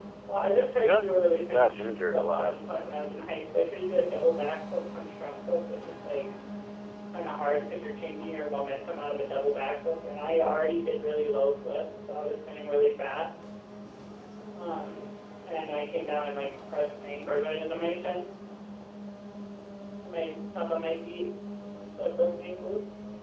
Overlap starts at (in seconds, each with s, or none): 0.9 s